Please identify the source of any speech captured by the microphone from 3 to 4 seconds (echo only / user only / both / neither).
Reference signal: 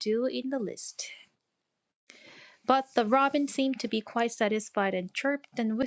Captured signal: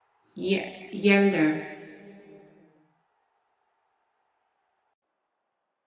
neither